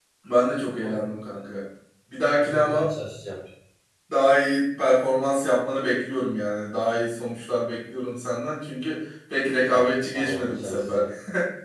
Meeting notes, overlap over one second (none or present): present